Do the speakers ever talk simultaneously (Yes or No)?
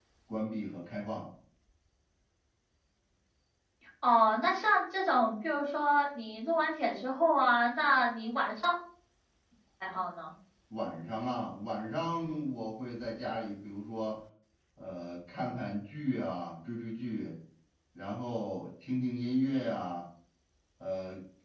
No